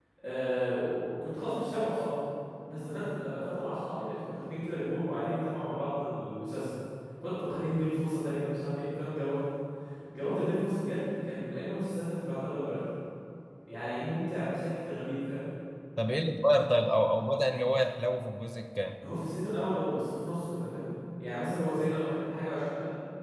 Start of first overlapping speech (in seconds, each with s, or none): none